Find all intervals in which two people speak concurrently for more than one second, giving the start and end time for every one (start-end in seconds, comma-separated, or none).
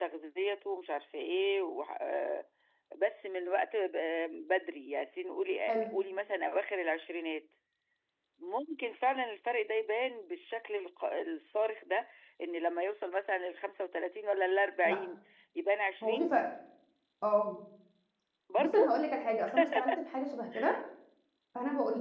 none